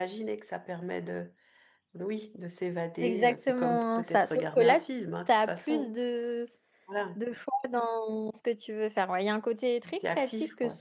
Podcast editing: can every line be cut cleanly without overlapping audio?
No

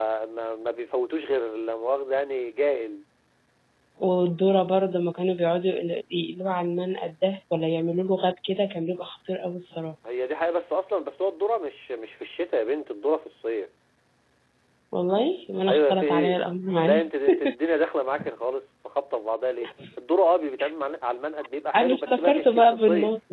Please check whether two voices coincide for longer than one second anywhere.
Yes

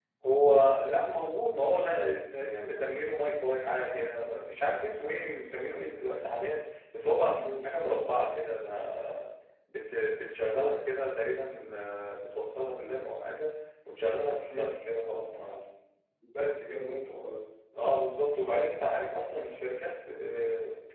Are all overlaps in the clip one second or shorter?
Yes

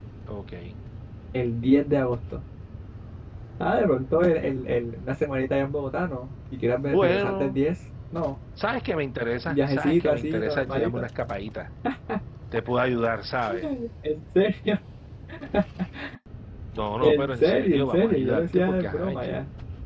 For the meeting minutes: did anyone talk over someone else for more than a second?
Yes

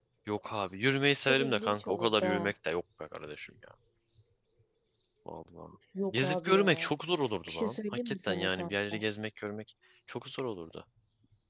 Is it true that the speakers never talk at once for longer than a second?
No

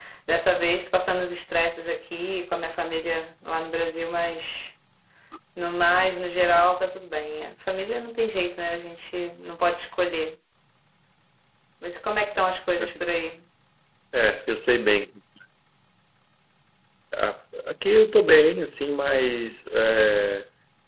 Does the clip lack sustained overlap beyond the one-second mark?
Yes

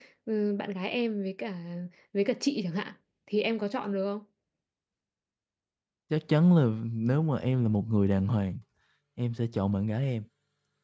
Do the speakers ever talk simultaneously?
No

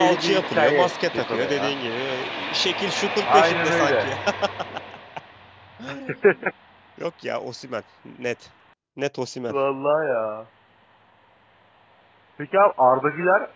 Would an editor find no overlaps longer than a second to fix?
No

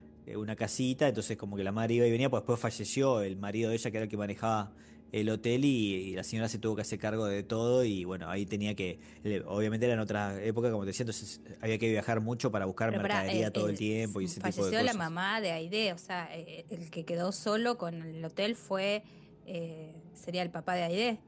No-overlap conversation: No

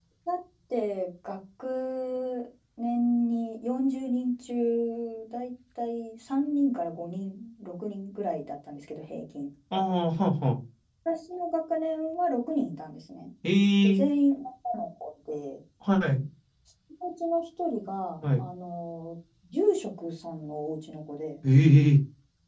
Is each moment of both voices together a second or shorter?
Yes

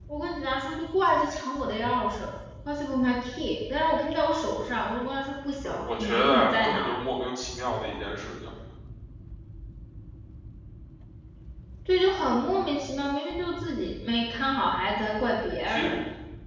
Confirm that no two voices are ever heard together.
No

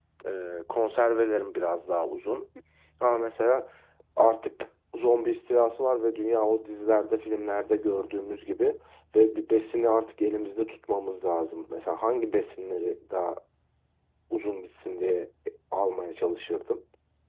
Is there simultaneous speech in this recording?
No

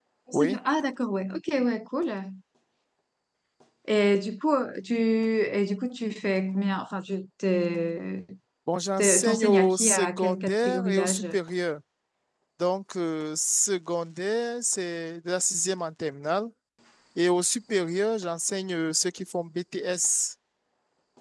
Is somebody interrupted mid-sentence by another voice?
Yes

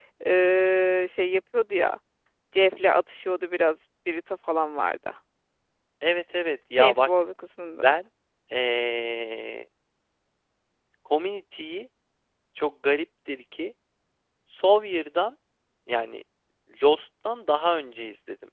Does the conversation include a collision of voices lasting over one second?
No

